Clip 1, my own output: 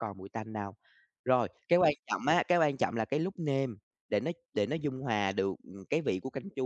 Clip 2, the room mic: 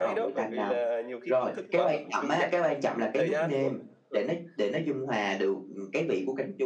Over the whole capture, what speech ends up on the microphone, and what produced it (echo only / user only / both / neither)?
both